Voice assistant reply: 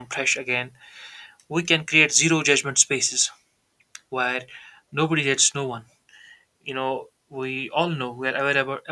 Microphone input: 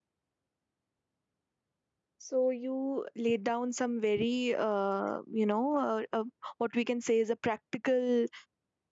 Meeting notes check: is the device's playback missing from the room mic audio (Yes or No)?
Yes